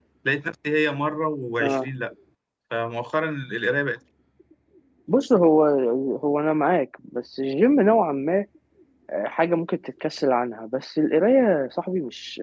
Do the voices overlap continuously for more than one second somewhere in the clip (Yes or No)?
No